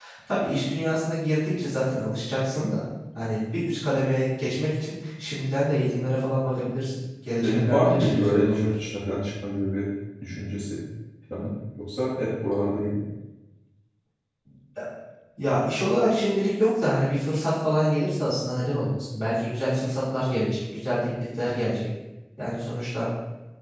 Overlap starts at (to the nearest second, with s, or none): 7 s